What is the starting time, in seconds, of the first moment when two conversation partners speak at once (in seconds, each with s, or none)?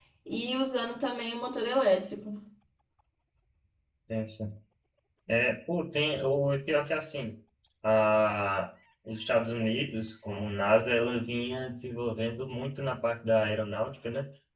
none